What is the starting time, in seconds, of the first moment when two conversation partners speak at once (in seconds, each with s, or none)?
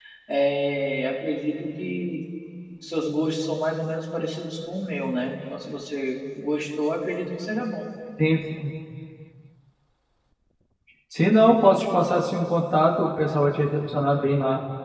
none